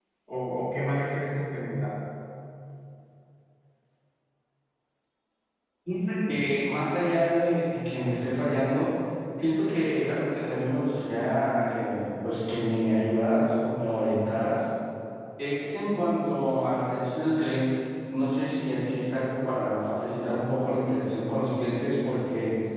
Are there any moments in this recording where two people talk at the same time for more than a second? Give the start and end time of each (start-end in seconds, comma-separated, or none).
none